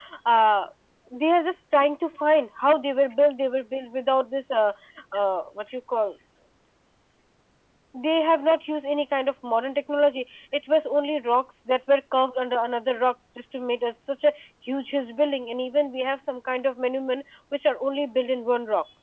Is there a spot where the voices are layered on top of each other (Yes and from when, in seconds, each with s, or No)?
No